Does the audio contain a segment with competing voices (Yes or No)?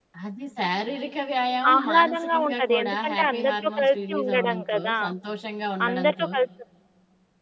Yes